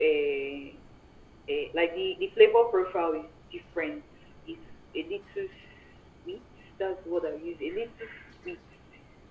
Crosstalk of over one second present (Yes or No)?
No